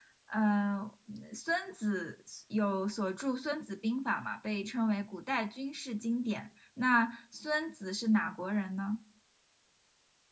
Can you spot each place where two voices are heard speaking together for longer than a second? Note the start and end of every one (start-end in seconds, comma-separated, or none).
none